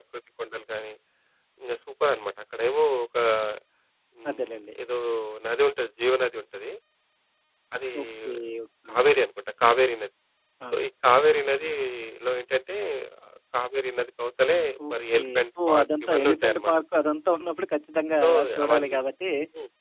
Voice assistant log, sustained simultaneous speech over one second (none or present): present